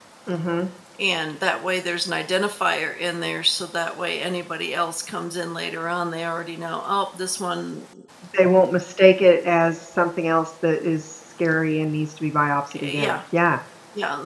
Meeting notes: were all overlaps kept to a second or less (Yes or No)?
Yes